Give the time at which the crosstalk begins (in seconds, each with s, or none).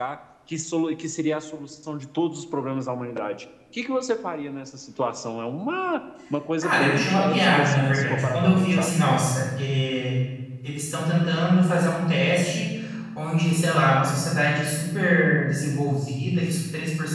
6.6 s